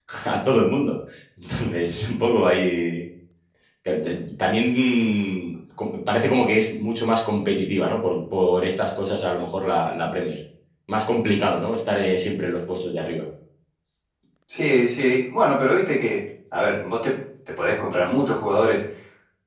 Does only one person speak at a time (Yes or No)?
Yes